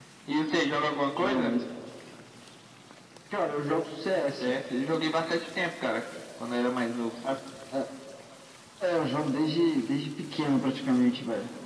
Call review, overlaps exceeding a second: none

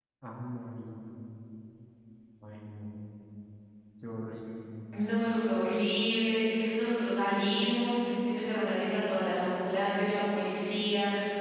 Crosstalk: none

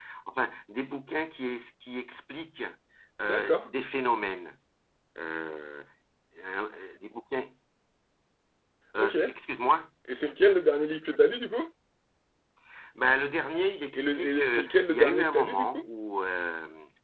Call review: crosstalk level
present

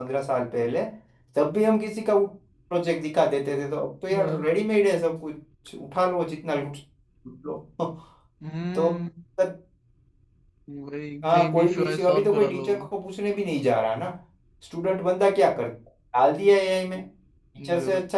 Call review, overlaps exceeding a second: present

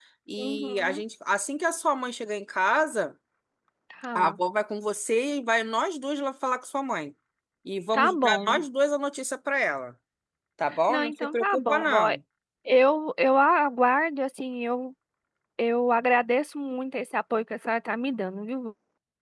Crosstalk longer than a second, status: present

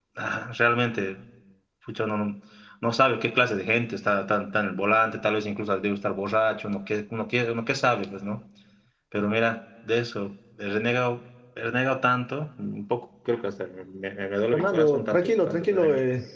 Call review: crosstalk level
present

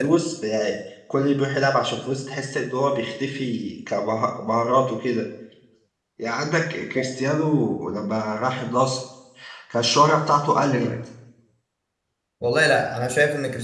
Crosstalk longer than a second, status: none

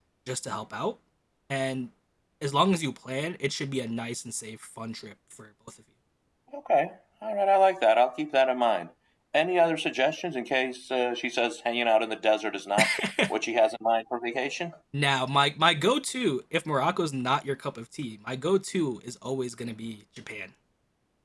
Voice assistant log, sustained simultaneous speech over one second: none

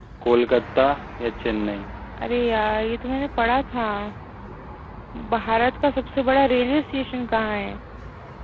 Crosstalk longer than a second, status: none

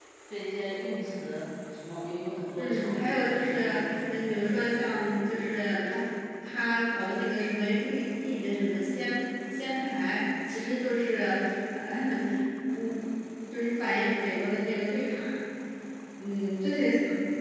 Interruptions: present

